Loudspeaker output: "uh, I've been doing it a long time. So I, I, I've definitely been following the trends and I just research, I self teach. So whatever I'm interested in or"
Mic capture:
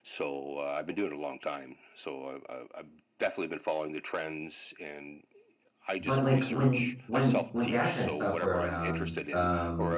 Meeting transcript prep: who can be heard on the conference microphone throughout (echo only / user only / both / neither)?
both